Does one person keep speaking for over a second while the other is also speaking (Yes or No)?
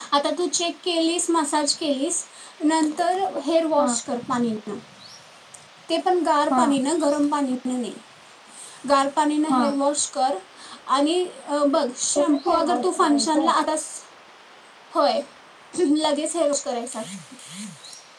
Yes